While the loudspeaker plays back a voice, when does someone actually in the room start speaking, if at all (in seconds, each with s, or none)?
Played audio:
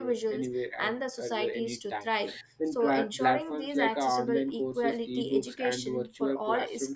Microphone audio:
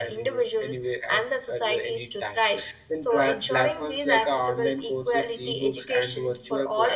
none